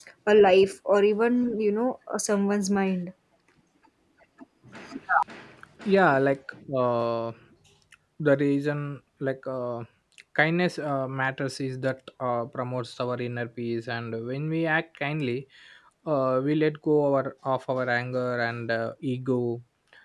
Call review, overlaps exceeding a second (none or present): none